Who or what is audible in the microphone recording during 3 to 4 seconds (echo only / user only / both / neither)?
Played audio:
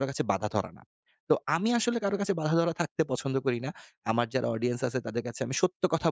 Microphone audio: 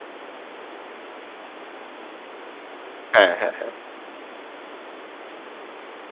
user only